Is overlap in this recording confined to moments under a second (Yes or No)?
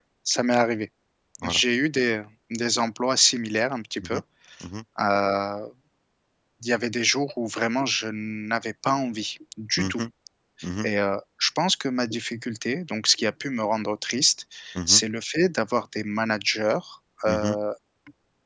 Yes